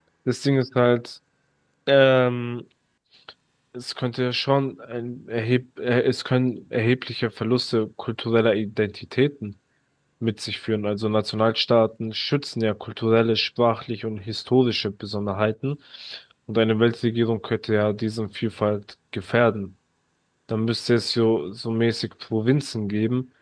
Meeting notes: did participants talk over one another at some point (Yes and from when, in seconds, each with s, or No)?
No